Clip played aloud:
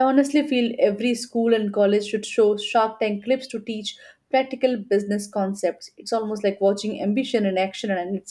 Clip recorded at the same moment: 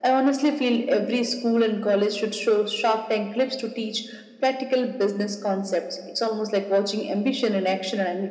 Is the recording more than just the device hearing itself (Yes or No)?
No